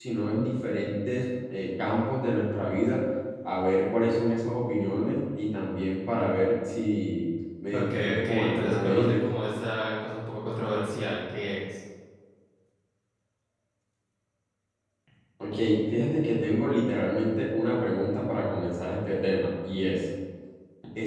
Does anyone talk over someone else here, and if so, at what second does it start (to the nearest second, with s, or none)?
8 s